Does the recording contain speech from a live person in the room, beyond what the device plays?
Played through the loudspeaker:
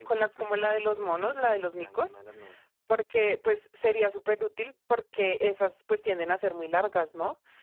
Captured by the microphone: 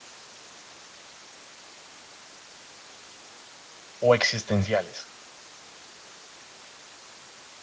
Yes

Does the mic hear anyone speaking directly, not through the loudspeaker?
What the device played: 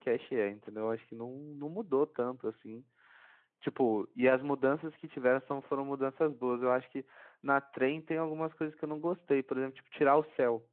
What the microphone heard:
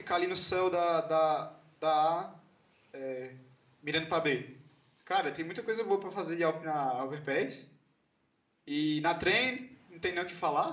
Yes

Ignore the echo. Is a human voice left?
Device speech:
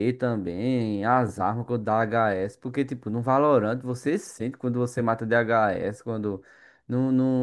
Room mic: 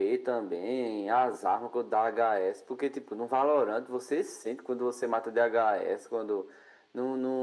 No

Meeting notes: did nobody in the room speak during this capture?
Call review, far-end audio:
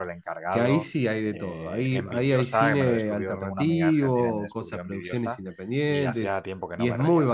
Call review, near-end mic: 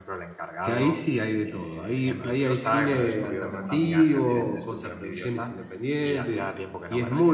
Yes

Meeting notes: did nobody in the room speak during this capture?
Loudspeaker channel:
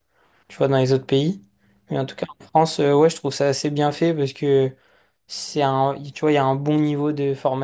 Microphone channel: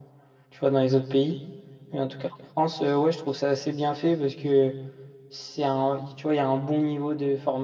Yes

